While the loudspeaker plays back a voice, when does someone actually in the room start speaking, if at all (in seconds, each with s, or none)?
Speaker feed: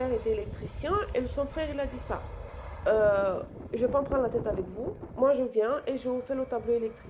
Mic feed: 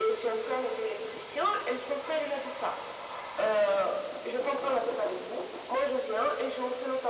none